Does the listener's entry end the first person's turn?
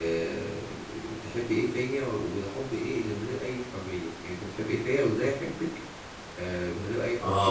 Yes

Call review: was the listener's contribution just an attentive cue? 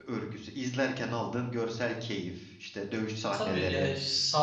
No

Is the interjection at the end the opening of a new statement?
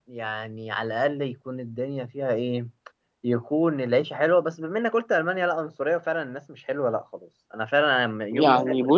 Yes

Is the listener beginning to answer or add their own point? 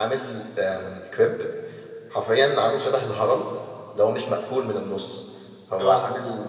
No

